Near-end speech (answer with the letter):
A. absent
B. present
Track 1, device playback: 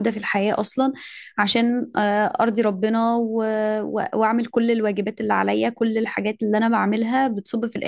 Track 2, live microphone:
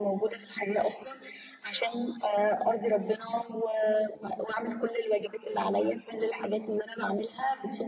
A